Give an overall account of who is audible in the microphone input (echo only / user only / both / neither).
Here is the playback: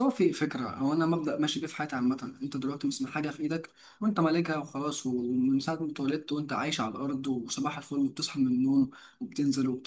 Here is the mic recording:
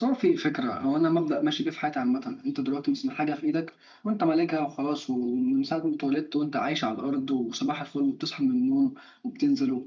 echo only